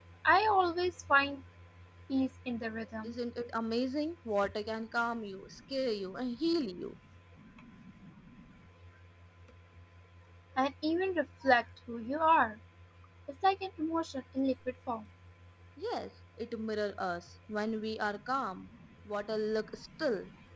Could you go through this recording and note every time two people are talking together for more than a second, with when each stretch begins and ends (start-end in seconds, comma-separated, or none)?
none